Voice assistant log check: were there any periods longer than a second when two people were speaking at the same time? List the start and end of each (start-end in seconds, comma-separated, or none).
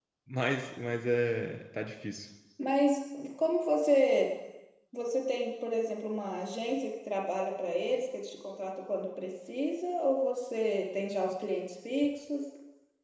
none